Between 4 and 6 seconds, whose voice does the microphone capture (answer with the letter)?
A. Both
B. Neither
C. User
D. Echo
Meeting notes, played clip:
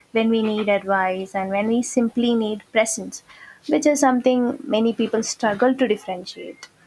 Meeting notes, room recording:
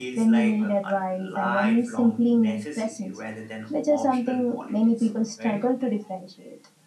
A